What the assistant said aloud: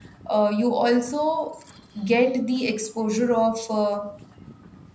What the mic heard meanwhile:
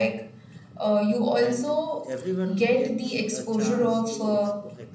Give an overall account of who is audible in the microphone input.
both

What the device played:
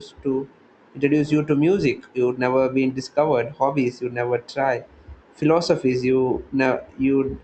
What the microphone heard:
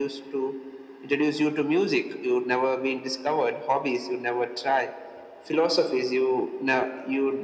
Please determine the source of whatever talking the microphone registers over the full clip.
echo only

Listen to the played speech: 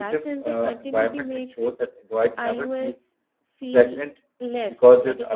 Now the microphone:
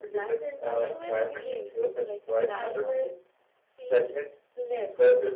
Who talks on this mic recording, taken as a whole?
both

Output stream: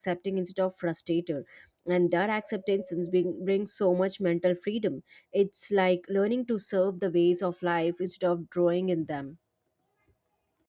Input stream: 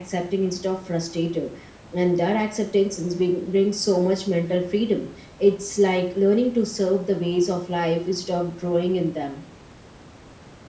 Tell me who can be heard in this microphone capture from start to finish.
echo only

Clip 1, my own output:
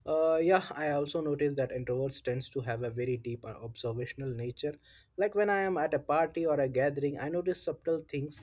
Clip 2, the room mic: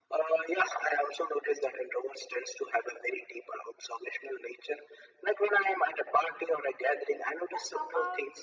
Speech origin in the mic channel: both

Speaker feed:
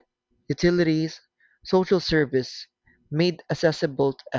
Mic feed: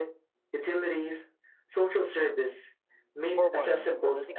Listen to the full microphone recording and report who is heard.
both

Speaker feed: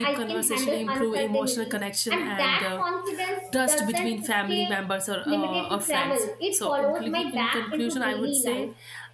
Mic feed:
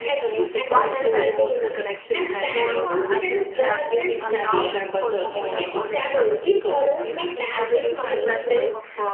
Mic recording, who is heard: both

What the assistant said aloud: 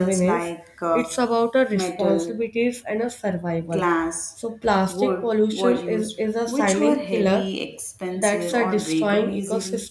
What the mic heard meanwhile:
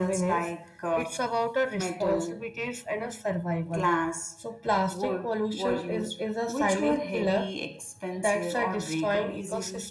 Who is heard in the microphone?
echo only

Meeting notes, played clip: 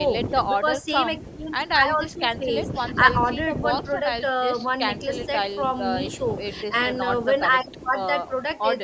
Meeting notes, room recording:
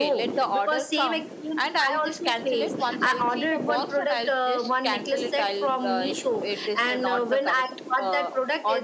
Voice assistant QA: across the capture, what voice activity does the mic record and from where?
echo only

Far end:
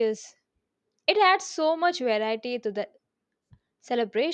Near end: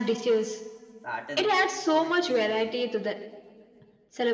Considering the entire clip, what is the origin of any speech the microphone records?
both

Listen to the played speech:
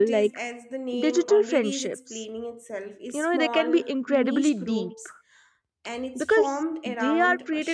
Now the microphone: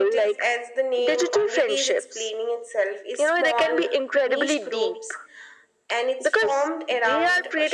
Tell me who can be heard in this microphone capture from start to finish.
echo only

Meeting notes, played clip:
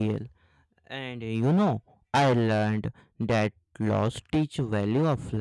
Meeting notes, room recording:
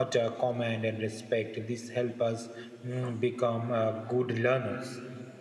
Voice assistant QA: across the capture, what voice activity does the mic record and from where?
user only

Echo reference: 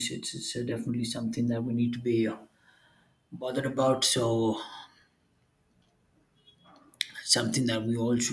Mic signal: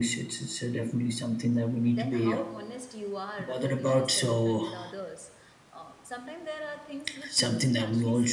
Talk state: both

